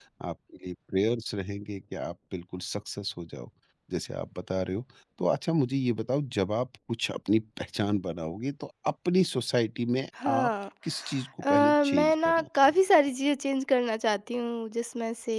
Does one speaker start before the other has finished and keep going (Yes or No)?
Yes